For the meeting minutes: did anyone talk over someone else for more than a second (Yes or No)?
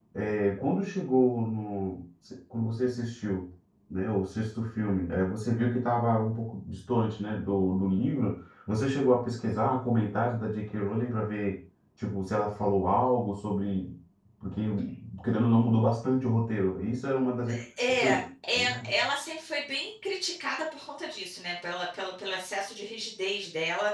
No